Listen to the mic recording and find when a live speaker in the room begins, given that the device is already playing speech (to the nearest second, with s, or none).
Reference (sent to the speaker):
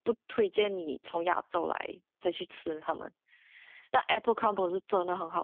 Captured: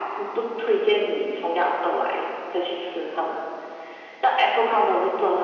none